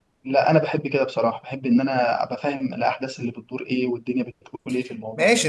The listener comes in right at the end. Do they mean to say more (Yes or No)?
Yes